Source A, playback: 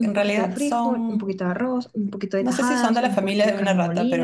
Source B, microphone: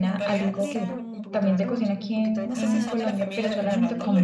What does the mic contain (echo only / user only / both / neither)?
both